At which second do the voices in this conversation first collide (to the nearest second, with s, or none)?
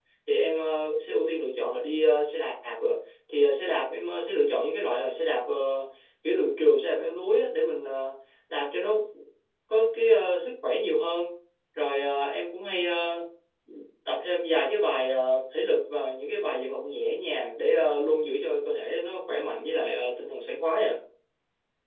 none